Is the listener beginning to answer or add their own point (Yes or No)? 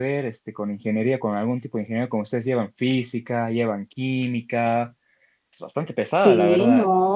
Yes